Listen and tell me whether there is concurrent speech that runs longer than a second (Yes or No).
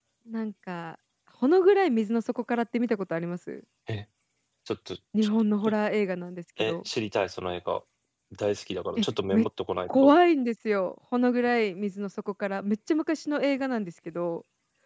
No